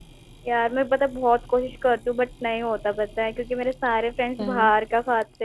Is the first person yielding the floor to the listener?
No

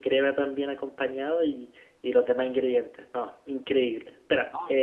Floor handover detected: No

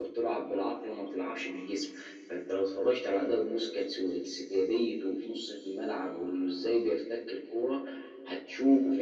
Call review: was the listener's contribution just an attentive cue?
Yes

